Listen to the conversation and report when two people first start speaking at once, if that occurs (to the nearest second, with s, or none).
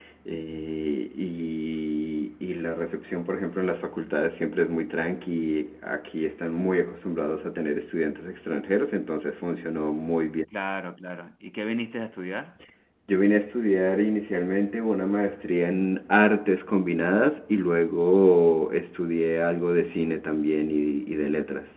none